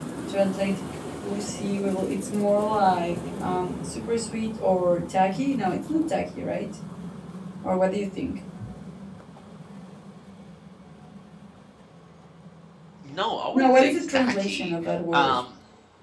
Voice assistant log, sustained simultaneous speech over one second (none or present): present